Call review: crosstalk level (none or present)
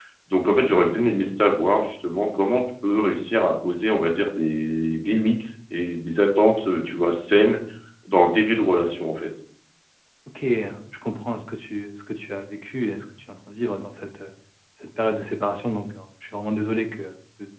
none